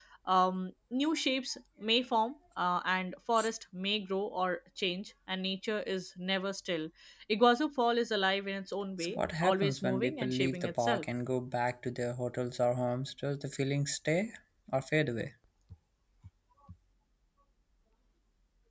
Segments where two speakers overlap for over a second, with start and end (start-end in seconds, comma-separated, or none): 9.0-11.1